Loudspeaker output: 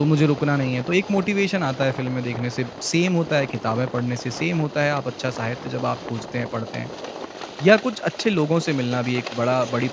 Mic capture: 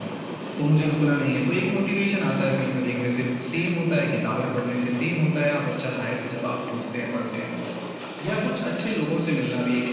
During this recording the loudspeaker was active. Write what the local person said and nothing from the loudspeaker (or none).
none